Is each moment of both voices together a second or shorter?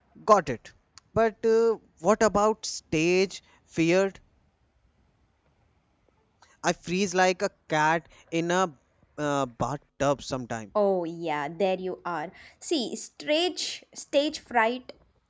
Yes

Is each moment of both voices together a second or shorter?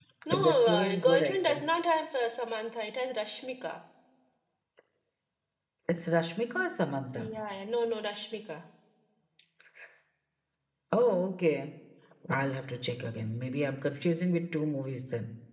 No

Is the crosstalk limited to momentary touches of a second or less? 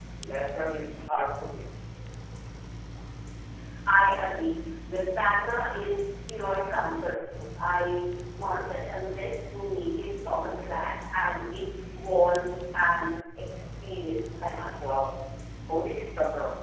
Yes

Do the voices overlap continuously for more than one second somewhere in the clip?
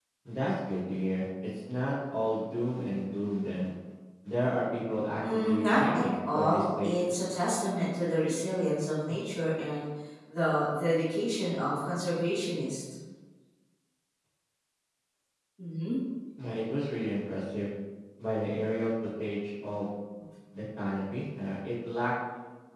Yes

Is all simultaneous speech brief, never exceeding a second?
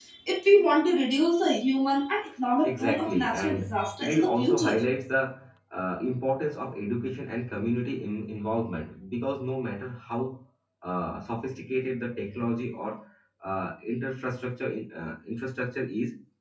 No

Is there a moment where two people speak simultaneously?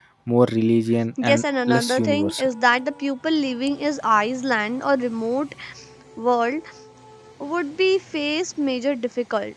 Yes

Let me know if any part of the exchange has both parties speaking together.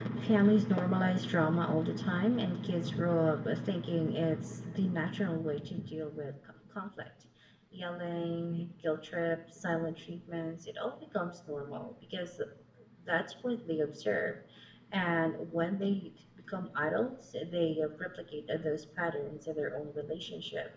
No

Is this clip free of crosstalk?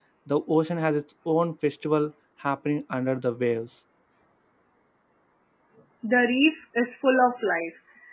Yes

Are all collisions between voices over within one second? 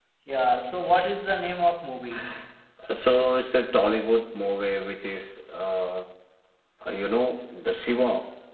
Yes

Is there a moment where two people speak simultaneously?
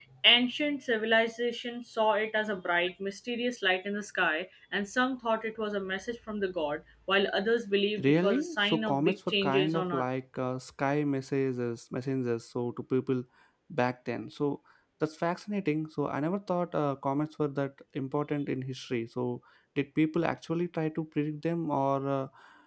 Yes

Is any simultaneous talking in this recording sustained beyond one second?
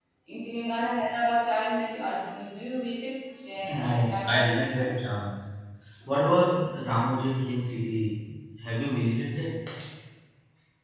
Yes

